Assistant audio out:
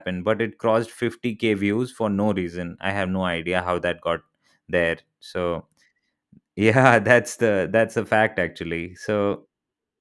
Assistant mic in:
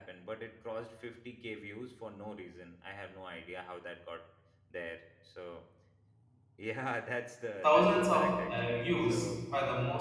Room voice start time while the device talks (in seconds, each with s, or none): 7.6 s